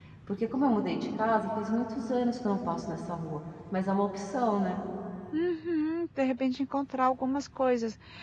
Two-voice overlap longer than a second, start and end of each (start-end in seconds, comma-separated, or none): none